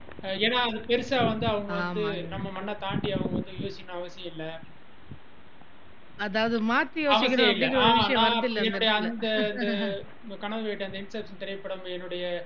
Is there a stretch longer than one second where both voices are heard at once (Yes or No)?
Yes